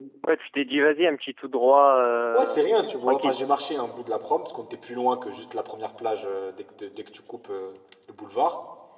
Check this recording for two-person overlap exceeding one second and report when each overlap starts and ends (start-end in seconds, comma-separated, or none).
none